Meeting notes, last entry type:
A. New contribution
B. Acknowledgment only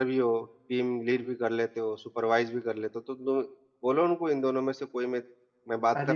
A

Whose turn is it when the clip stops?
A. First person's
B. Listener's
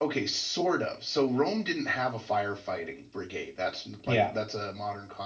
A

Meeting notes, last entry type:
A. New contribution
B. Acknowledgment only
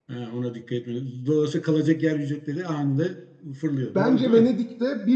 A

